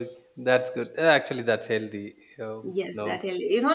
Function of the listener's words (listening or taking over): taking over